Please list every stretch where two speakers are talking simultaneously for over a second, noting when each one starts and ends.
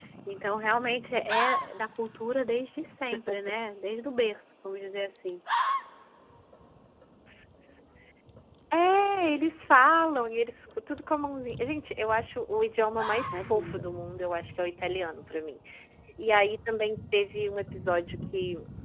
none

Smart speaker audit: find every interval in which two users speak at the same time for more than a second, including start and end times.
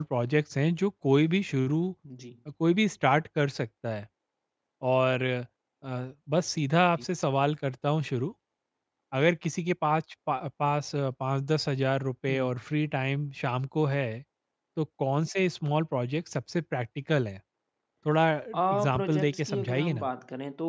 18.7-20.1

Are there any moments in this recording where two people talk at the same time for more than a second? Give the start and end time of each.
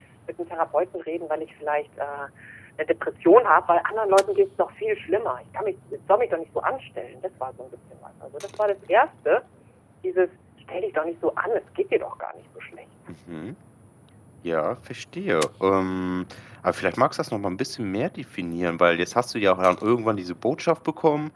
none

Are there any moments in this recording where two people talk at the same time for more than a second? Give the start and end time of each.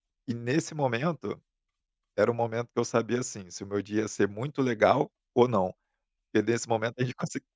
none

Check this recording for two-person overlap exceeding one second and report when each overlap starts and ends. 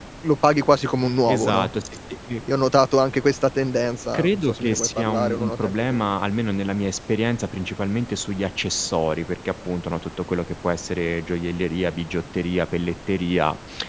4.1-6.0

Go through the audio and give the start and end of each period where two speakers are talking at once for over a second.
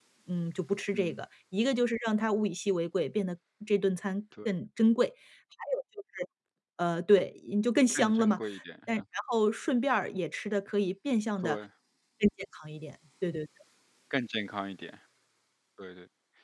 none

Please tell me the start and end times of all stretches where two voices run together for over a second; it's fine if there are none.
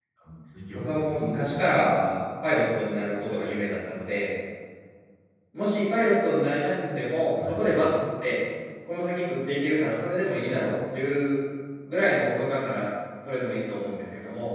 0.8-2.2

